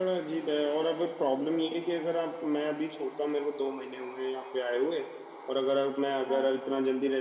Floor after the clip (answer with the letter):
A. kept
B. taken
A